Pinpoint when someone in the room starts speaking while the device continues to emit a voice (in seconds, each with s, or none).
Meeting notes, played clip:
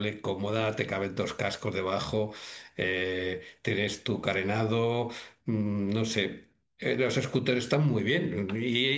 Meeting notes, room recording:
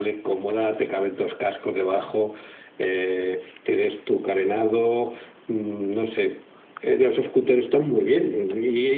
none